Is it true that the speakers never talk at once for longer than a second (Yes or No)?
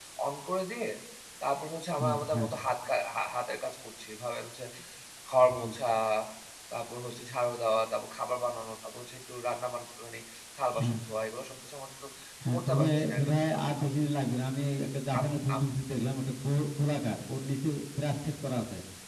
No